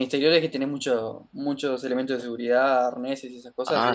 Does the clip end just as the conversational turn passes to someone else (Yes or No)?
Yes